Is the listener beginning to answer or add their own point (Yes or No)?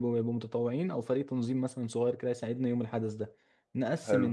No